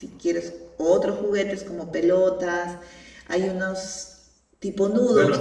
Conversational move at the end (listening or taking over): taking over